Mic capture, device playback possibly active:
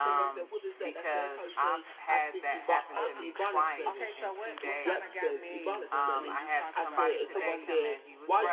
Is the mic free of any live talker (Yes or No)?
No